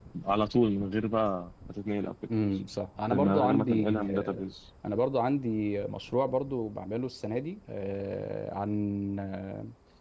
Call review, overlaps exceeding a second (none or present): present